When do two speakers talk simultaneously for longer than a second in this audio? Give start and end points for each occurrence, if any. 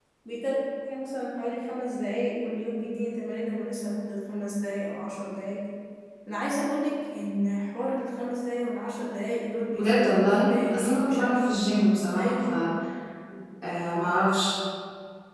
9.7-11.4

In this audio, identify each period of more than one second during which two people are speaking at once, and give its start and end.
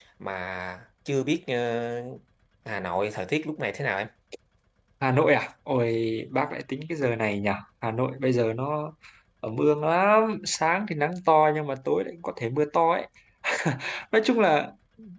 none

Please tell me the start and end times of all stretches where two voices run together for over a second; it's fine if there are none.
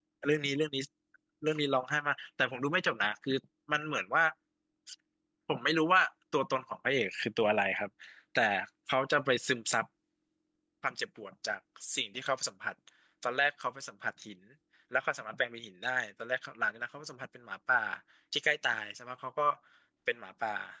none

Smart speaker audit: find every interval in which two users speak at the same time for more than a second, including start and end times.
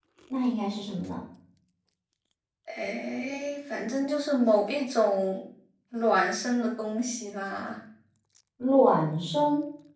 none

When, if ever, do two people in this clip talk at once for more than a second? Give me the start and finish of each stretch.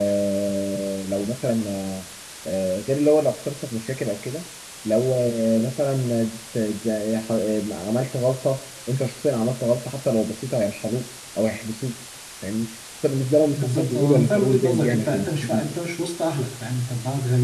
13.6-15.7

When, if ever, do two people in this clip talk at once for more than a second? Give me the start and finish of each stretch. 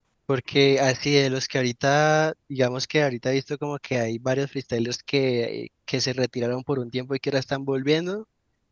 none

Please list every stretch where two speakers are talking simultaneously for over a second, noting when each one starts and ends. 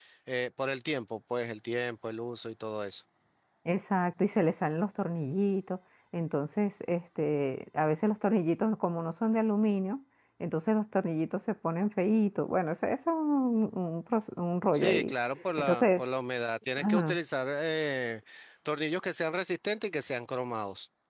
none

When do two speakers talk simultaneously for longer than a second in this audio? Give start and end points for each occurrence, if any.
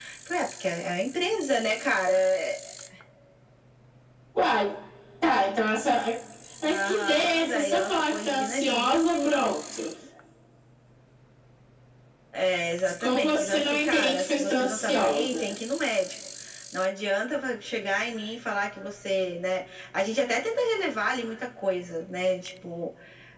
6.6-9.4, 13.0-15.5

